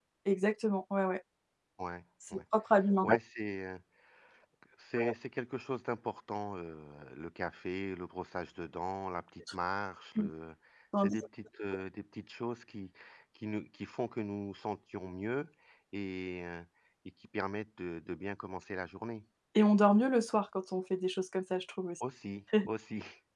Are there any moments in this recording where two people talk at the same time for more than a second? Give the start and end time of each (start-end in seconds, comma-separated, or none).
none